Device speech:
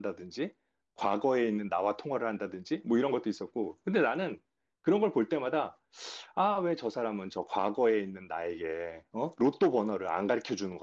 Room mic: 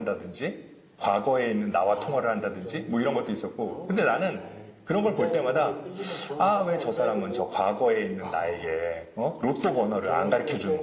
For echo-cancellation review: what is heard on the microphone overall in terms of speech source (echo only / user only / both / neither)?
both